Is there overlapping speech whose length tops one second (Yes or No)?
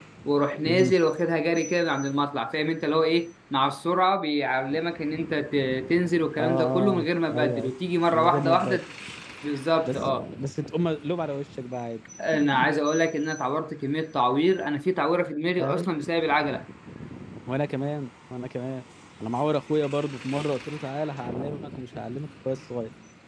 Yes